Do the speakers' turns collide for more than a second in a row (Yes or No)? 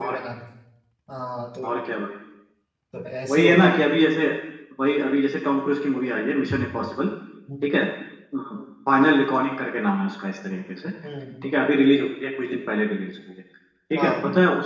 No